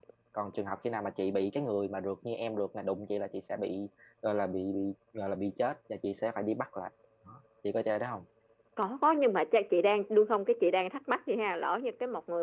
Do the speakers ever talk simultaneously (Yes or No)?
No